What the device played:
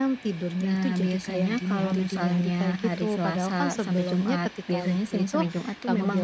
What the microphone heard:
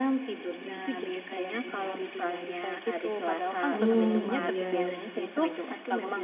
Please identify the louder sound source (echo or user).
user